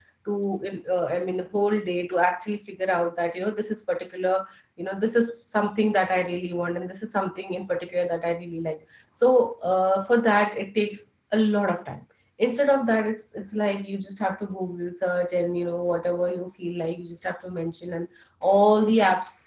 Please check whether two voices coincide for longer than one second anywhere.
No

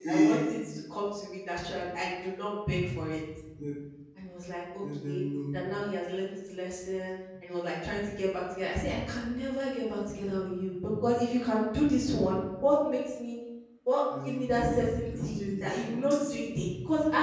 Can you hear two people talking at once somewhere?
Yes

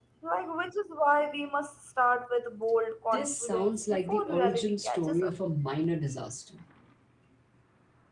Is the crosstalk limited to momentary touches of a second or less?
No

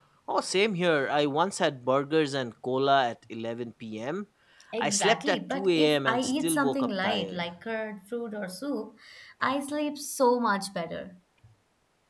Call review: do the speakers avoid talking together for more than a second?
No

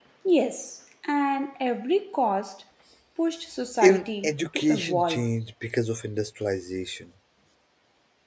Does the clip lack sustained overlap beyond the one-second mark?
No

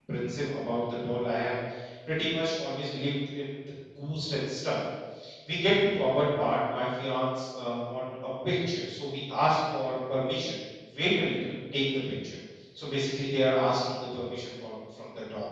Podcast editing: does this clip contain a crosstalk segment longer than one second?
No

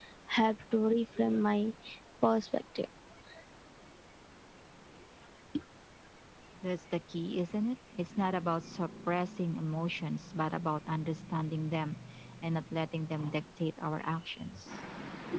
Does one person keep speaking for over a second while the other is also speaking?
No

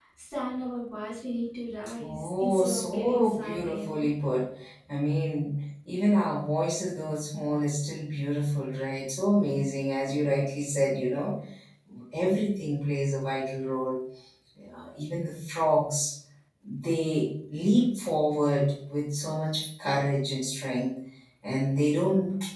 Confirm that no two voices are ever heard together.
No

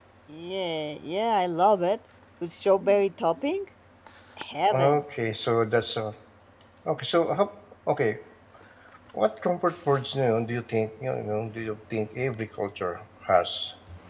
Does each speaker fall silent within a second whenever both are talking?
Yes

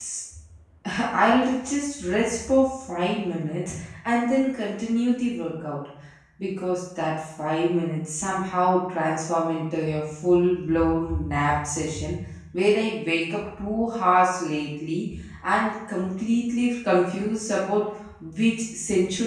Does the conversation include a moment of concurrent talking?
No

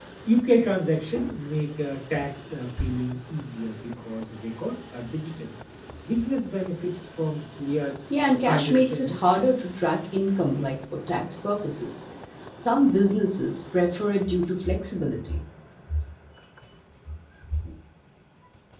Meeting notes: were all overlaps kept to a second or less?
No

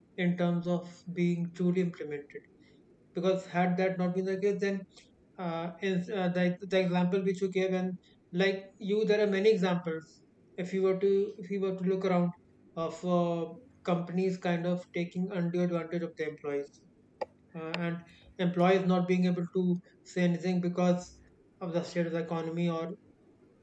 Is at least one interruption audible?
No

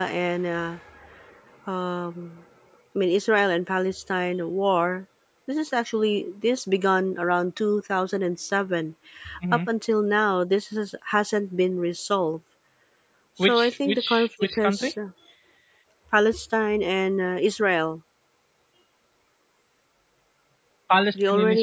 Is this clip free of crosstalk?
No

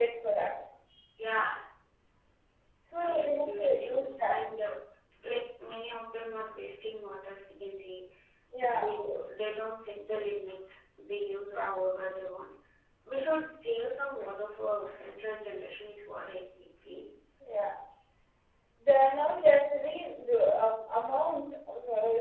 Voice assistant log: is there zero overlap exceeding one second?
No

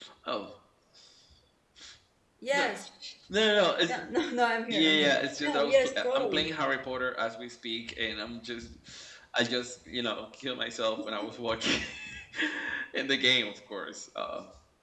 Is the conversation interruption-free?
No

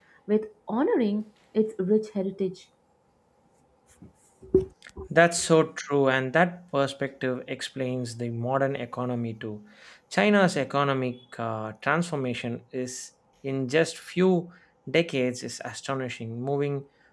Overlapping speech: No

